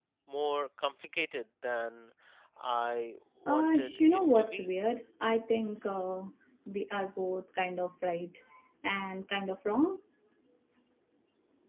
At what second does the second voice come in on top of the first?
3.5 s

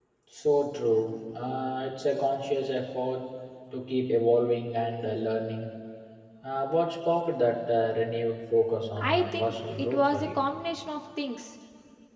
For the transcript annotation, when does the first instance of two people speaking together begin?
9.0 s

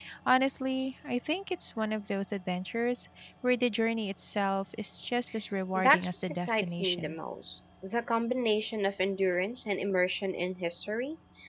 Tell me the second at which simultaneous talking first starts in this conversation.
5.8 s

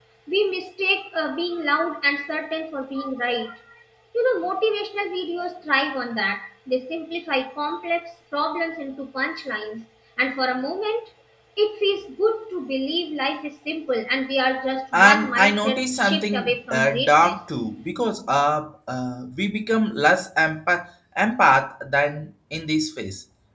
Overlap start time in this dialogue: 14.9 s

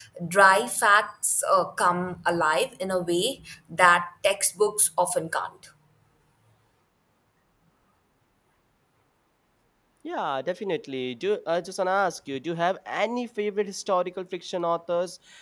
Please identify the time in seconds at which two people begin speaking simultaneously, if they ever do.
none

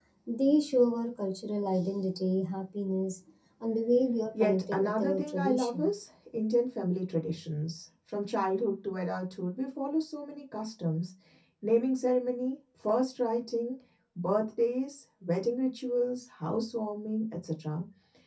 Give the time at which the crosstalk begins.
4.3 s

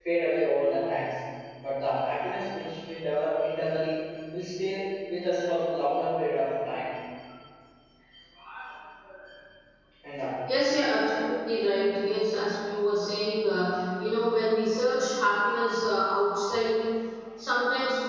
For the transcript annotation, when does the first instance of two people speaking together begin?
none

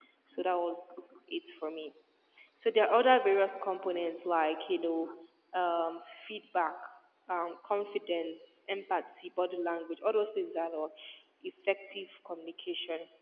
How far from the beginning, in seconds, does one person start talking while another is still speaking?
none

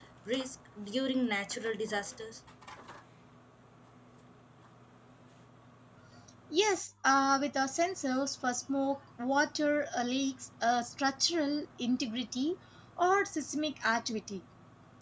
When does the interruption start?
none

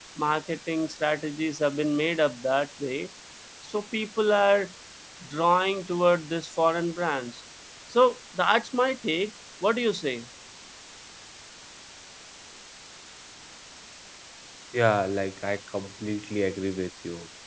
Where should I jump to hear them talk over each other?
none

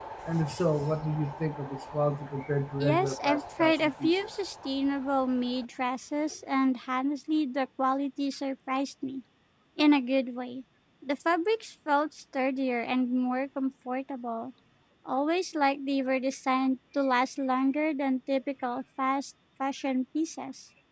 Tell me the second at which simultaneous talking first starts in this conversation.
2.8 s

